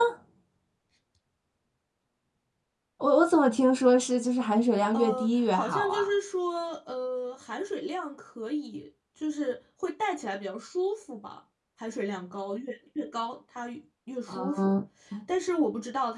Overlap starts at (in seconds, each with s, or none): 4.9 s